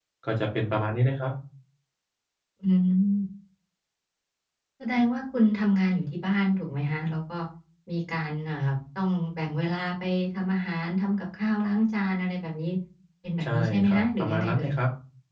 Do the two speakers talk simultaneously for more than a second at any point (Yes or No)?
Yes